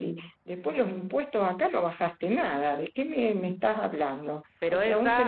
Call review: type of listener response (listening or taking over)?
listening